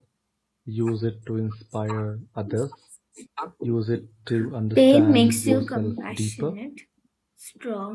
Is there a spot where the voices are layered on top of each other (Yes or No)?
Yes